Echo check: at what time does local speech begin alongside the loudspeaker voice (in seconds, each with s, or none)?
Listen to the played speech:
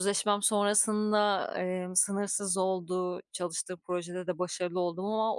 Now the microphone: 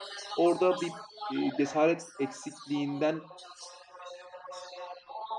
0.4 s